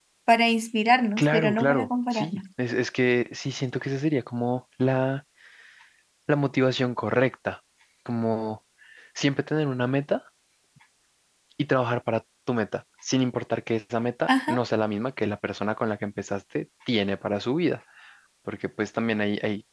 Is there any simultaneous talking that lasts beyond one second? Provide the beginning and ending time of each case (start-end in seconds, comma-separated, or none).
1.2-2.4